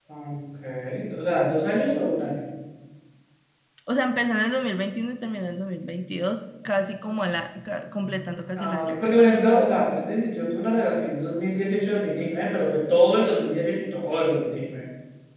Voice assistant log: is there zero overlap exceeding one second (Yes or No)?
Yes